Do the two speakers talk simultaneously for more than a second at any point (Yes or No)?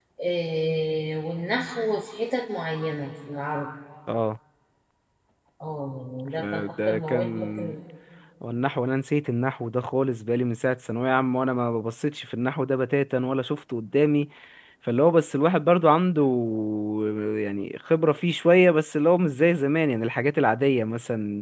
Yes